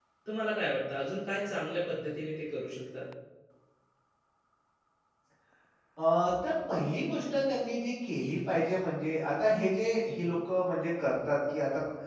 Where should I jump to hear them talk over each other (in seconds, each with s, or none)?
none